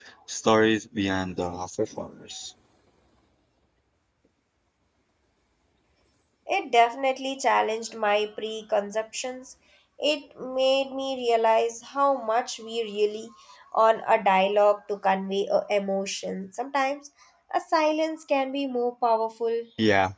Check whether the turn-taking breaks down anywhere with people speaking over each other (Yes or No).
No